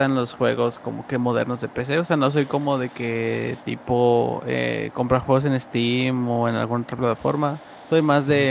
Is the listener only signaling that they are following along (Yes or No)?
Yes